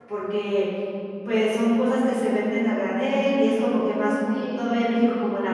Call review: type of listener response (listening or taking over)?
listening